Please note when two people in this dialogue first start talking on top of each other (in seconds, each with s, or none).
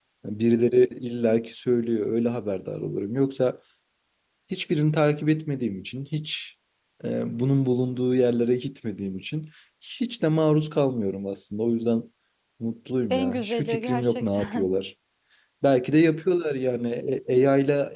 13.1 s